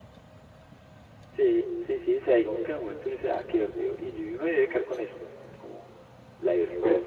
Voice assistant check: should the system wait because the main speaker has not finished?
Yes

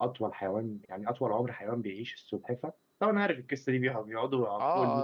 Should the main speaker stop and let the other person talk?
Yes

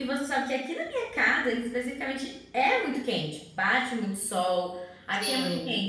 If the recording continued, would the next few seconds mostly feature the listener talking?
No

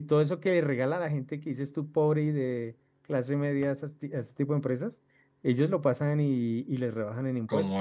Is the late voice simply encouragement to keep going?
No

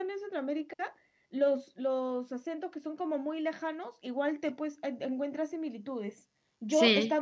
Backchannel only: Yes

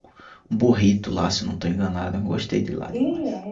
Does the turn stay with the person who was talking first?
No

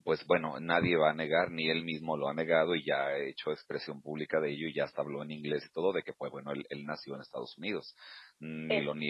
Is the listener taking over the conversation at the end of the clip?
No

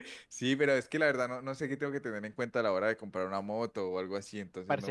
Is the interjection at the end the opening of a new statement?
Yes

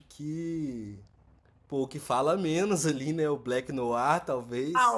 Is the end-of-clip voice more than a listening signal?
Yes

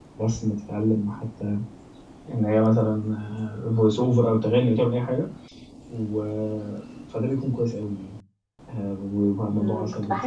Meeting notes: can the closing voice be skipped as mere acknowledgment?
No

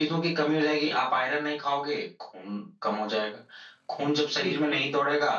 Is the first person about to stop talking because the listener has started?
No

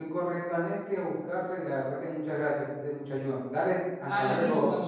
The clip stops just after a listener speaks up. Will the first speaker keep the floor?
No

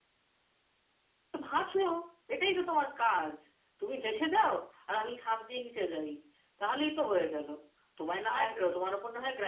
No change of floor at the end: Yes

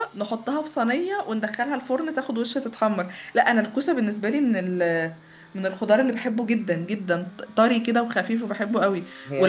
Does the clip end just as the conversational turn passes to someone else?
No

